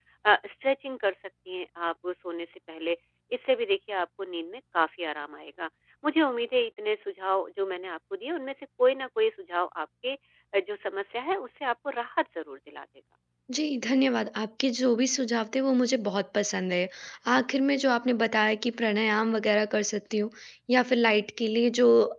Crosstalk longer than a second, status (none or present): none